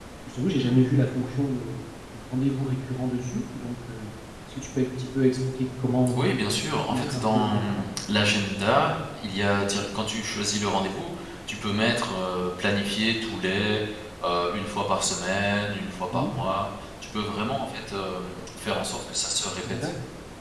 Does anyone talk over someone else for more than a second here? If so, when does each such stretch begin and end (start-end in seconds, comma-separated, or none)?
6.2-7.8